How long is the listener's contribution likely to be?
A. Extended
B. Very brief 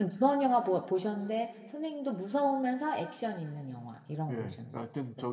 A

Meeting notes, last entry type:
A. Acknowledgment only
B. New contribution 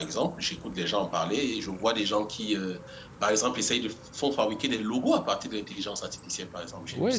B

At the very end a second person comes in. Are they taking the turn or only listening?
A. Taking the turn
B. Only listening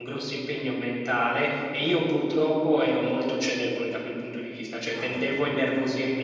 B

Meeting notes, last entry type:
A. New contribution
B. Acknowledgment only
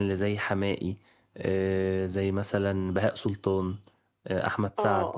A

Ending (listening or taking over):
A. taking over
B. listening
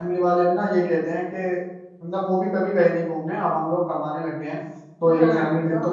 A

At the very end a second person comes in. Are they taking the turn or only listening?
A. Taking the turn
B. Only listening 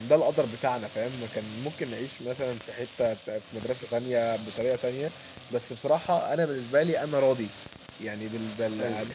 B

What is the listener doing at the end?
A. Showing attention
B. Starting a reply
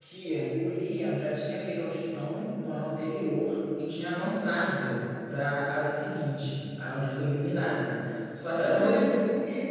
B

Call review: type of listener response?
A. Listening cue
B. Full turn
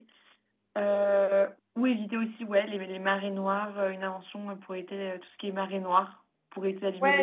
B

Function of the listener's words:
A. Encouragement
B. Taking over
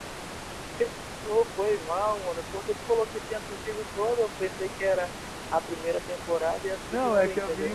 B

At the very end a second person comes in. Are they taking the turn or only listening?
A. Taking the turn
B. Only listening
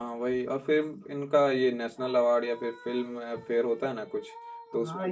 A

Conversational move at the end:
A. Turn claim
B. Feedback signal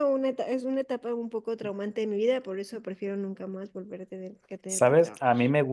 A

